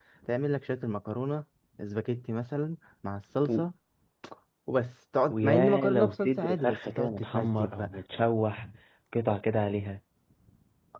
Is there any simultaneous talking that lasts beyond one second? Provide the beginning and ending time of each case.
5.3-8.0

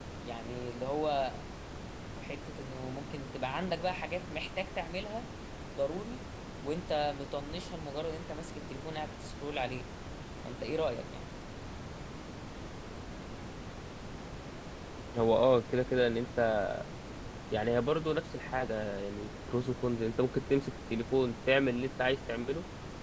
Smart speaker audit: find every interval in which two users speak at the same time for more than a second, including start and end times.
none

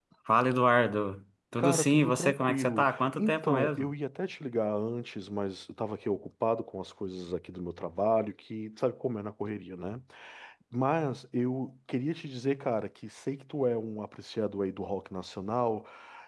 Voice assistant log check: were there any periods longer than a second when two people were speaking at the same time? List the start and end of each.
1.6-3.9

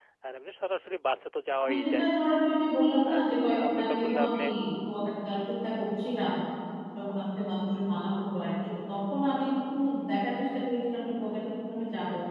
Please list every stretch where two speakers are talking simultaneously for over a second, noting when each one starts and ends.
3.1-4.4

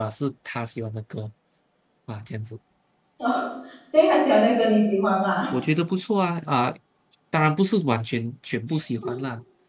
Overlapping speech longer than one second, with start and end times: none

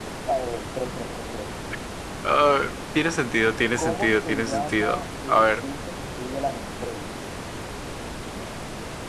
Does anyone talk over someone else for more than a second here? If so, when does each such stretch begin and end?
3.8-5.5

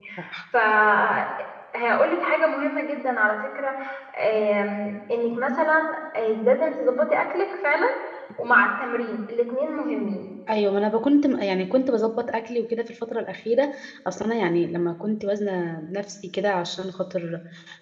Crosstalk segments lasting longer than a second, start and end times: none

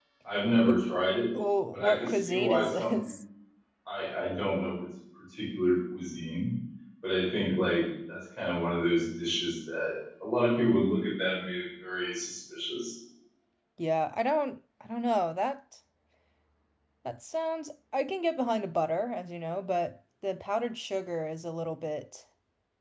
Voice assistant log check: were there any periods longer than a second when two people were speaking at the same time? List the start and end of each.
1.7-3.0

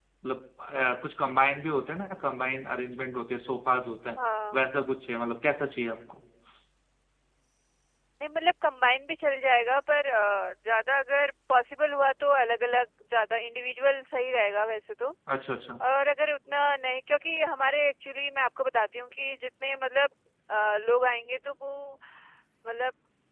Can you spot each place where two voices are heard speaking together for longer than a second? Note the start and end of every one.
none

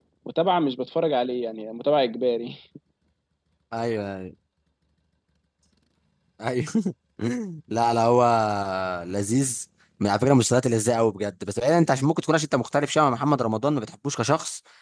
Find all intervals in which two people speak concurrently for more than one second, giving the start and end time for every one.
none

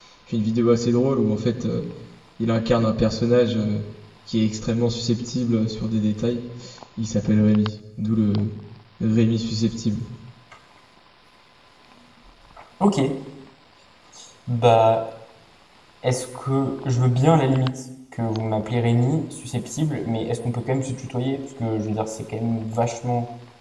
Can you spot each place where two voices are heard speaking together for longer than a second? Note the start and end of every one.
none

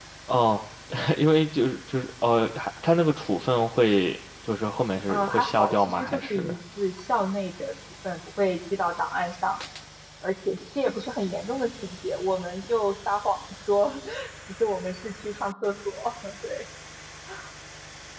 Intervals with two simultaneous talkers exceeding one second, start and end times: 5.1-6.5

